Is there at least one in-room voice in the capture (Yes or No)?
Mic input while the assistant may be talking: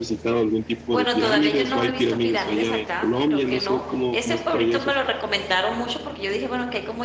Yes